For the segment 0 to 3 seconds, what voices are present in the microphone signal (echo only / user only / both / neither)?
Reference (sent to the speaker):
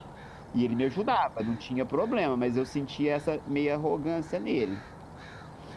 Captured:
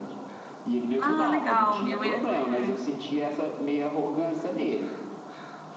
both